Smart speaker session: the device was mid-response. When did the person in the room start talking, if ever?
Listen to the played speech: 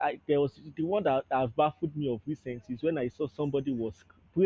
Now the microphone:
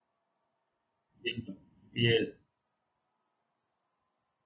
1.2 s

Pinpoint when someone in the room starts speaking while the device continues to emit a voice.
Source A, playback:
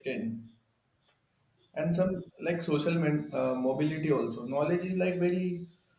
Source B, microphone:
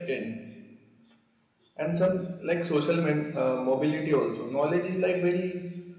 none

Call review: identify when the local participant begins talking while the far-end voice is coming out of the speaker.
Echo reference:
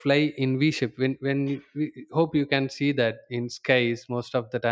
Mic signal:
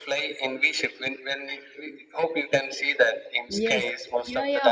3.5 s

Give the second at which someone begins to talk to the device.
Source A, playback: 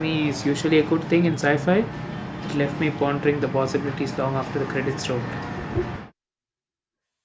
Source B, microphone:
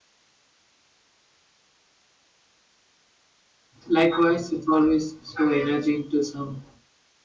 3.9 s

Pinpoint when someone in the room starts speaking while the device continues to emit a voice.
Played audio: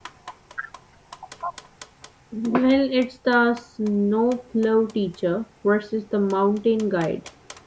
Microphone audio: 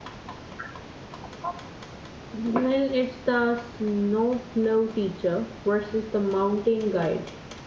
none

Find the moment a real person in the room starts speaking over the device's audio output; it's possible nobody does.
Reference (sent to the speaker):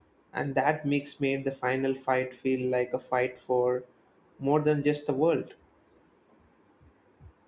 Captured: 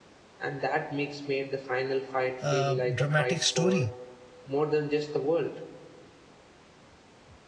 2.5 s

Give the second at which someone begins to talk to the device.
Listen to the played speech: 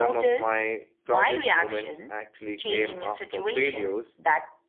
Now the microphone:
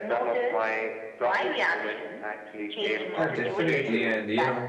3.1 s

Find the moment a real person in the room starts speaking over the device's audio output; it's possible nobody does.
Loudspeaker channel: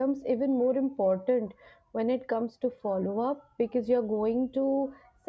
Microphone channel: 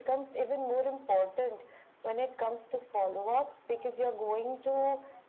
none

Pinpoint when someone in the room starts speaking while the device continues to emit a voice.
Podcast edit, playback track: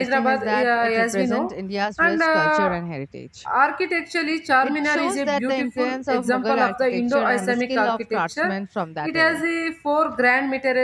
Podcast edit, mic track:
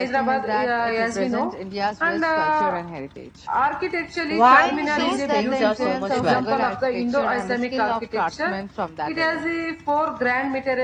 4.3 s

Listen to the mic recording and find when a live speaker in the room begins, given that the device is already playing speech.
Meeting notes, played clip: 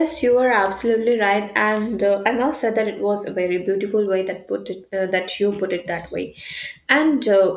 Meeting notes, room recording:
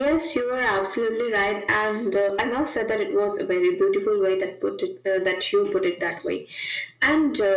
none

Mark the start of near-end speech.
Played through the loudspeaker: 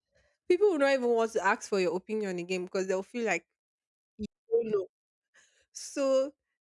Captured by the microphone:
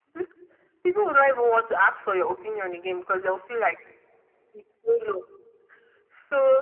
none

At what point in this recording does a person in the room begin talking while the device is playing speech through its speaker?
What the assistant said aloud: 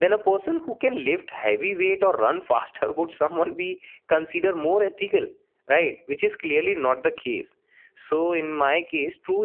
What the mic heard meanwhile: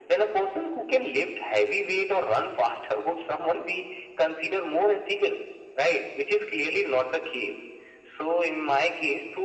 none

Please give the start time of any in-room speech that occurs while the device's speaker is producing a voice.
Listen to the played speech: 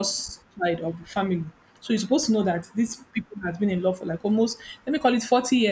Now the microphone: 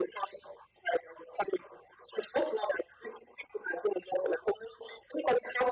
none

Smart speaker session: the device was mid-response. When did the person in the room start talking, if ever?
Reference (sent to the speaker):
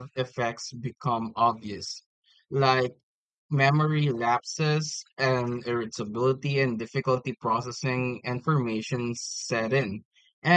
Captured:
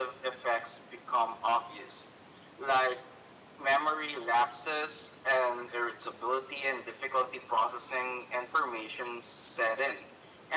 none

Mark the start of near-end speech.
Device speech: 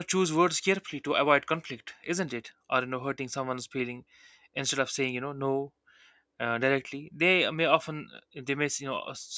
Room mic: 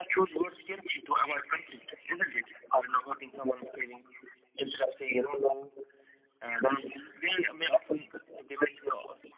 none

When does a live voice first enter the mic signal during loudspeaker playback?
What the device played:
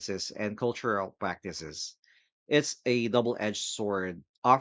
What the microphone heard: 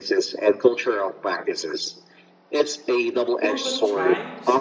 3.4 s

